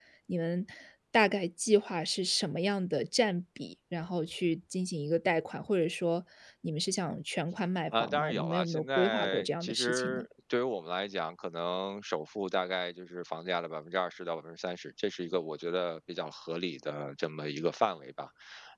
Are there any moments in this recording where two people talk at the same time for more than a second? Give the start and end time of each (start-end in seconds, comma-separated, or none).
8.0-10.2